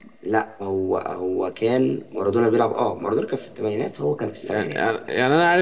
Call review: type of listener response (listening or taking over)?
taking over